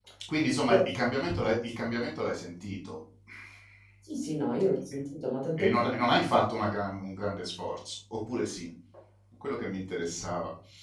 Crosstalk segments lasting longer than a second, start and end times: none

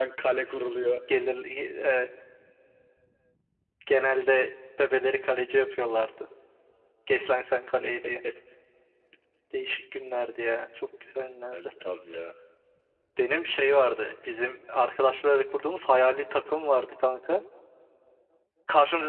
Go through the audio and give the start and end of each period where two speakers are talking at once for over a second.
none

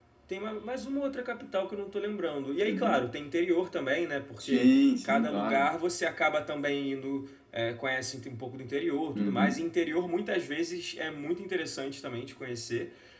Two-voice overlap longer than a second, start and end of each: 4.4-5.7

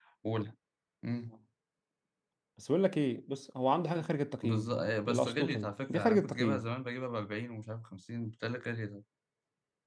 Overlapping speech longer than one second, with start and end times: 5.1-6.7

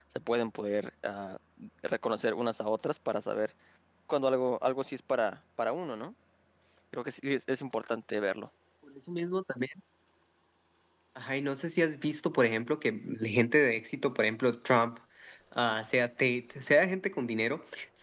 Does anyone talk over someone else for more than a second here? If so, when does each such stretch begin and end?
none

